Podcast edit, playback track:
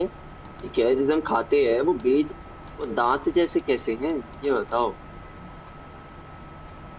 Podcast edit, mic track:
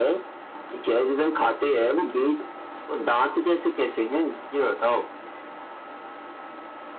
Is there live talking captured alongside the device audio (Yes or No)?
No